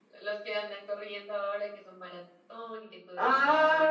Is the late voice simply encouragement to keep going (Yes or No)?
No